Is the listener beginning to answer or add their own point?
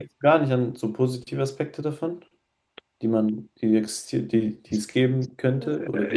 Yes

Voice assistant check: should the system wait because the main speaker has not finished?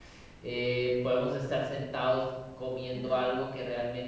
Yes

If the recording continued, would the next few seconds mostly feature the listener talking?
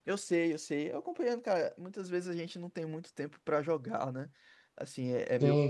No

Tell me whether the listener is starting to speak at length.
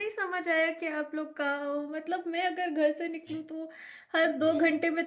No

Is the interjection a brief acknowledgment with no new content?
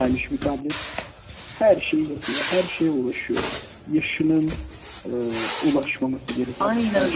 No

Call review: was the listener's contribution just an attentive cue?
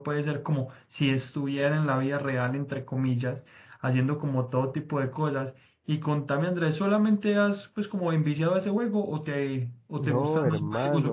No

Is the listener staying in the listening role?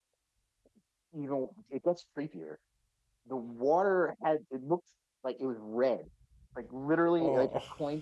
Yes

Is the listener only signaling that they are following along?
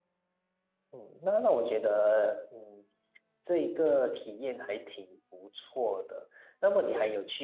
Yes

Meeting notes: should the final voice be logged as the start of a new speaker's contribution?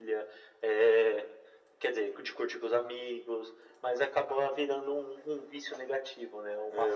Yes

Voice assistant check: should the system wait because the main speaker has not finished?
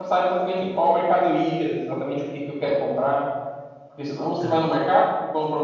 Yes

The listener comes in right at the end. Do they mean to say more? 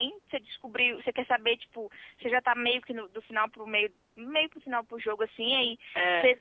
No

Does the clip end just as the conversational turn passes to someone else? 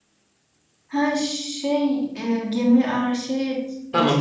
Yes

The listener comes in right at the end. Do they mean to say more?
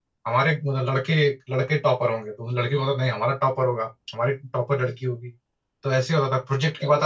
No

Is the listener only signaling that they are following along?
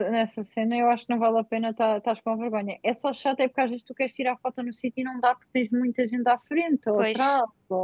Yes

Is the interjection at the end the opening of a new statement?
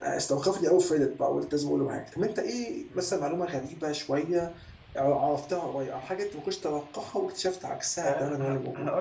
Yes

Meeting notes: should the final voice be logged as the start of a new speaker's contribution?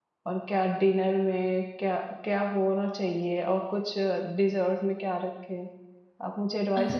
Yes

